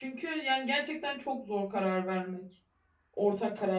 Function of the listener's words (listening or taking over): taking over